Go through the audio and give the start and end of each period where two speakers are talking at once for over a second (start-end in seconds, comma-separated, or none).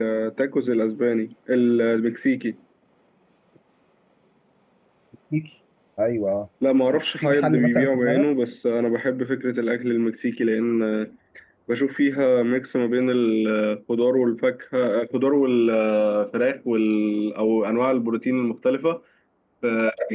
6.9-8.2